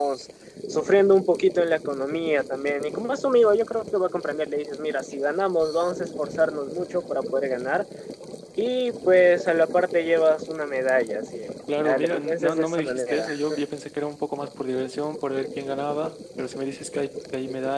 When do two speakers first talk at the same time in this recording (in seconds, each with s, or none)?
11.8 s